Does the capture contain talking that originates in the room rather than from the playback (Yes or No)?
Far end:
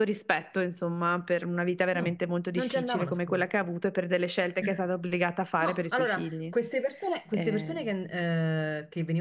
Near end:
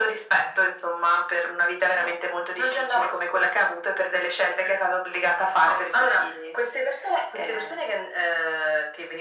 No